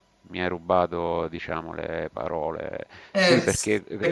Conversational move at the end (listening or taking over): taking over